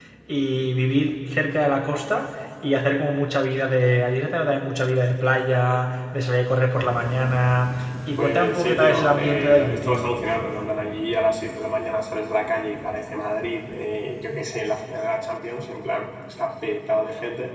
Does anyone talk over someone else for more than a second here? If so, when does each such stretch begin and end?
8.2-10.0

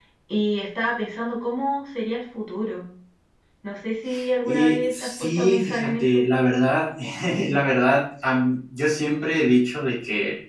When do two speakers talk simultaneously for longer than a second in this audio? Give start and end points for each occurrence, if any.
4.4-6.2

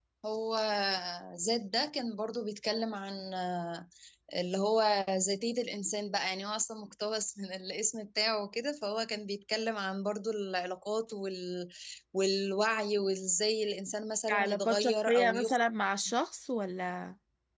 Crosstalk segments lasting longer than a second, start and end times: 14.3-15.6

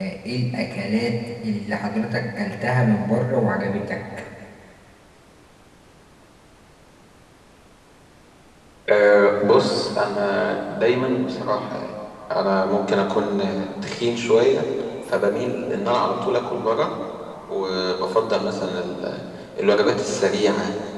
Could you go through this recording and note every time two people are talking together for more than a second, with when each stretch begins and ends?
none

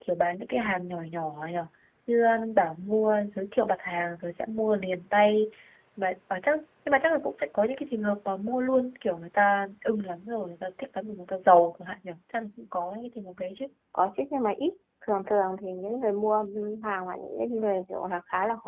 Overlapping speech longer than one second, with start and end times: none

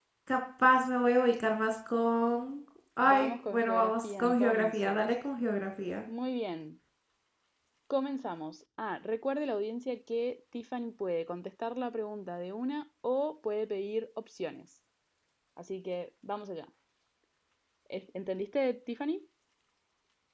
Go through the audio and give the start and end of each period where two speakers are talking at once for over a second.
3.1-5.1

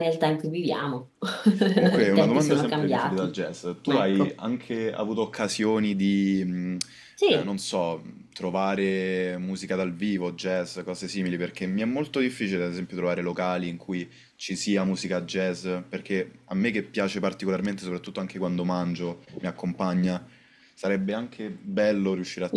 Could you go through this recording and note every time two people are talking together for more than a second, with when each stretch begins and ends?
2.0-3.3

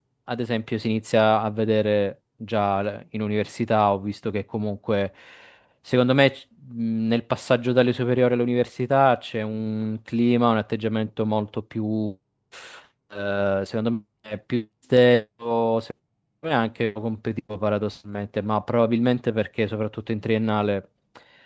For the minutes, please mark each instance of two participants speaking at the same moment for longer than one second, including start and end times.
none

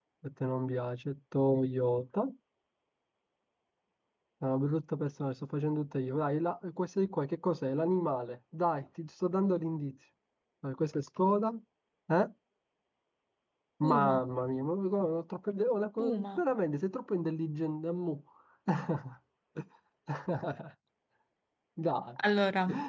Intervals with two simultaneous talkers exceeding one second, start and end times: none

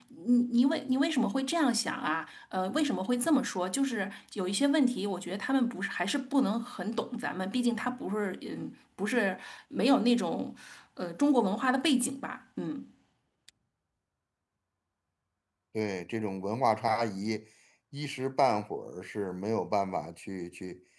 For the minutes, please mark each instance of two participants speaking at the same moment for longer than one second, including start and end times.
none

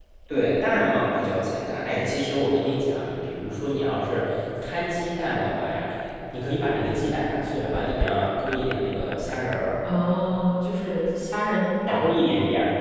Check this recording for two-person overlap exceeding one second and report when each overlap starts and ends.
none

